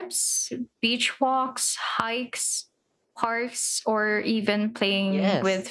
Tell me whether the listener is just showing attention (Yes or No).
No